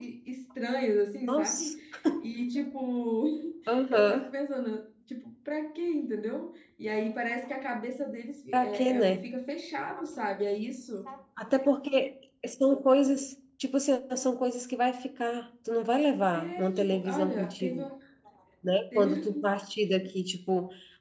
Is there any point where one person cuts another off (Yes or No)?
Yes